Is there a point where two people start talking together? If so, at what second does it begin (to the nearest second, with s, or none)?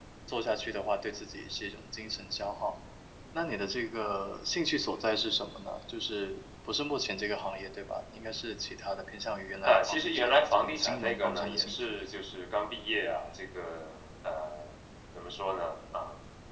10 s